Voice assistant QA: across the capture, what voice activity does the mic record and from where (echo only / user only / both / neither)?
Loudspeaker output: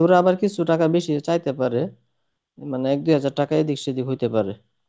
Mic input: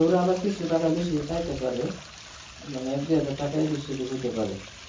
echo only